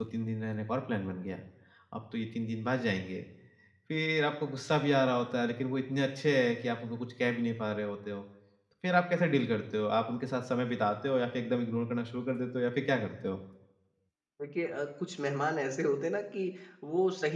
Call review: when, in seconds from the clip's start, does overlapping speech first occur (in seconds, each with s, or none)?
none